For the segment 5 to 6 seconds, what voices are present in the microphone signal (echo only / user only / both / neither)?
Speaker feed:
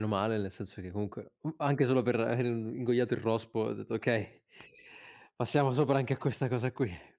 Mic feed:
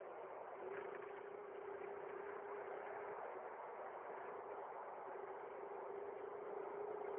neither